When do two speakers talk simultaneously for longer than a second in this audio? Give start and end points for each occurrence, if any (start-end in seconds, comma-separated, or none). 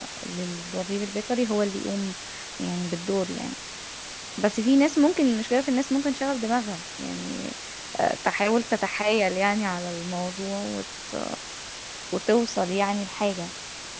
none